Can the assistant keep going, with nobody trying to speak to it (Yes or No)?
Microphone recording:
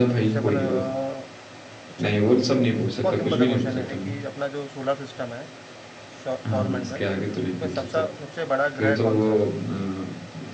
No